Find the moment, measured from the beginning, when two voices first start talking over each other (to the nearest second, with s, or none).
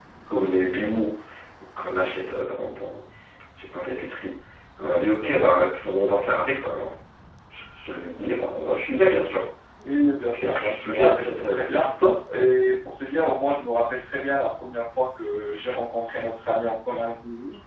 10 s